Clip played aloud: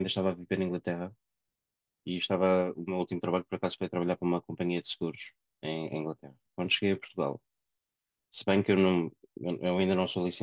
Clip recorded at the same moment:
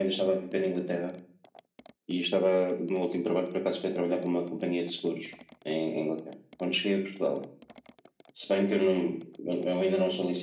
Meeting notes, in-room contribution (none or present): none